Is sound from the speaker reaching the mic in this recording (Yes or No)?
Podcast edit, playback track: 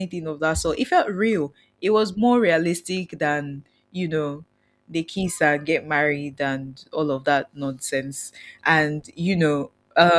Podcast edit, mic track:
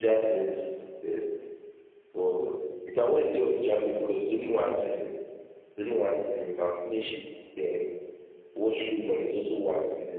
No